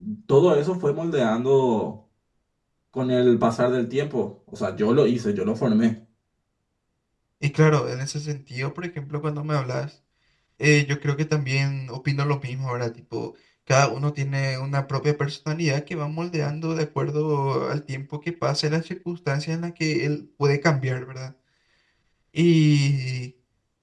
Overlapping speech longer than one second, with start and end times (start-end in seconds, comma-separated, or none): none